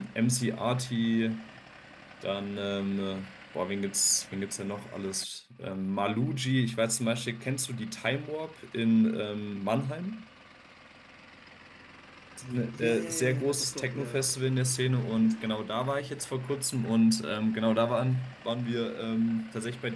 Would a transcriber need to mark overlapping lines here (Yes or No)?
Yes